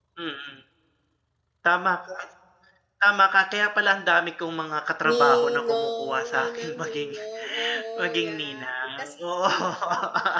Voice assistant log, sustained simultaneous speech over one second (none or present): present